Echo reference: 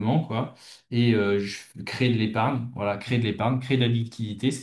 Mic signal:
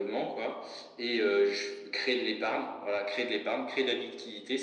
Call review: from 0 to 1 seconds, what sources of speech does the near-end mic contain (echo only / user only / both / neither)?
echo only